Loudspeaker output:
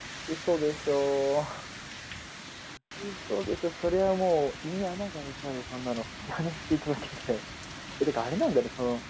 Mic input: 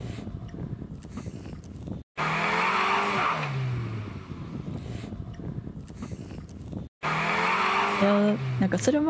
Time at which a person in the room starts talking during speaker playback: 8.0 s

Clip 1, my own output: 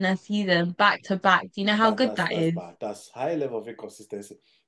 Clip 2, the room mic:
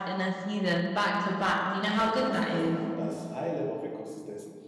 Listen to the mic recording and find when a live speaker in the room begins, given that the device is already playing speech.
none

